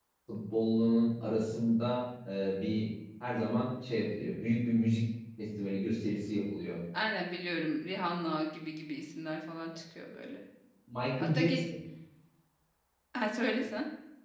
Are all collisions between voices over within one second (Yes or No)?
Yes